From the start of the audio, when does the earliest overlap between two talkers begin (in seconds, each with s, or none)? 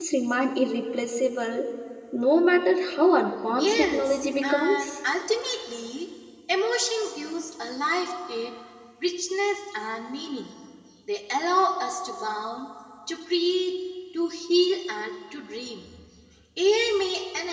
3.6 s